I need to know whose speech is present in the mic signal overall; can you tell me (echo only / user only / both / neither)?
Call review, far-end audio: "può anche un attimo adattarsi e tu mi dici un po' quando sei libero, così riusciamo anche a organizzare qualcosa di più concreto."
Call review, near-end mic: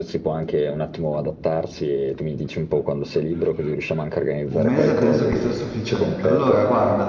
both